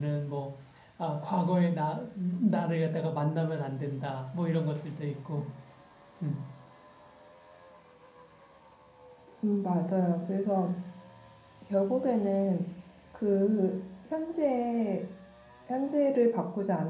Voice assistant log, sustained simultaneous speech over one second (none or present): none